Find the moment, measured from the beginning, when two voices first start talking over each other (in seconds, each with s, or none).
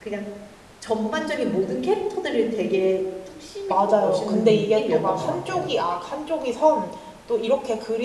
3.7 s